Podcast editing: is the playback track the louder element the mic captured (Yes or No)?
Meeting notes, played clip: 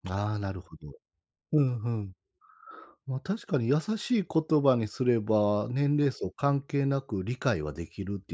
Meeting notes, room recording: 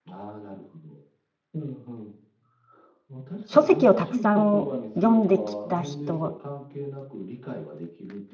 No